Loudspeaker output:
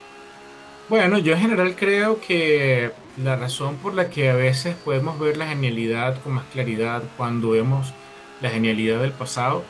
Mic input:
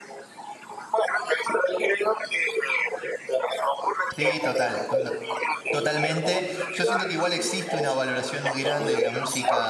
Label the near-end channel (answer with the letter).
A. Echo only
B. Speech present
B